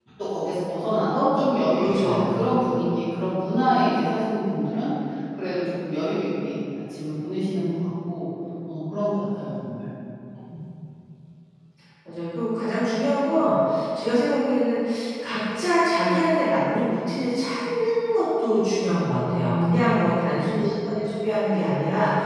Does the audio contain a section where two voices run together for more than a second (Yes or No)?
No